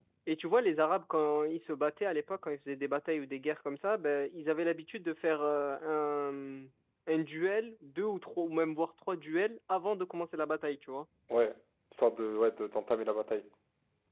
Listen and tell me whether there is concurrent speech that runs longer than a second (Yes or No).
No